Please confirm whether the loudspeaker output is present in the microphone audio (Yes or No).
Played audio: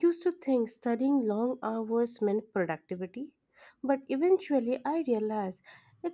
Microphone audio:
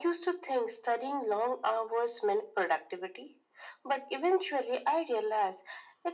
Yes